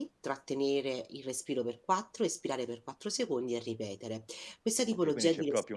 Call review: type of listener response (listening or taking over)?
taking over